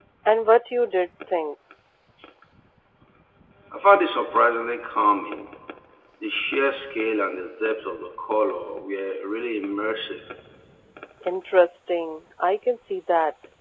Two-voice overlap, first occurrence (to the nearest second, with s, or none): none